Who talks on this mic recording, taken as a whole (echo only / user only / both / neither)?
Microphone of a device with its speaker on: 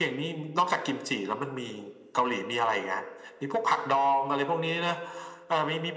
echo only